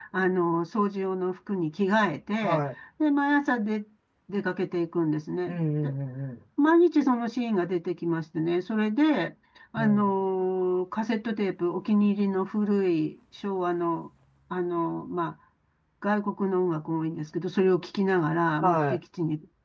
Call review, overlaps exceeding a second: none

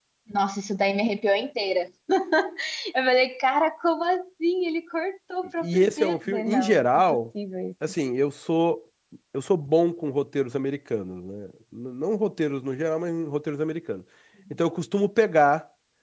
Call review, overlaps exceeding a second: present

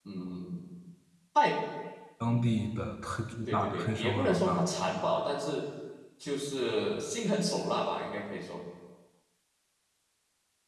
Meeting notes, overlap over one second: present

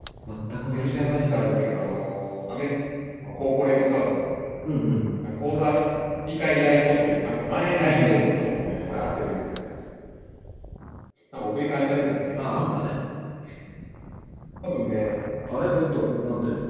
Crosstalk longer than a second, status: present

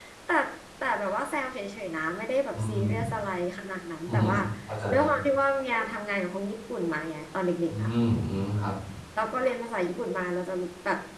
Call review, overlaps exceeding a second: none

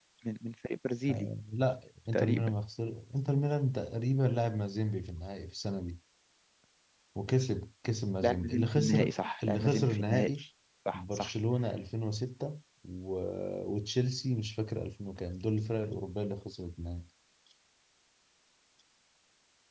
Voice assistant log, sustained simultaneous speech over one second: present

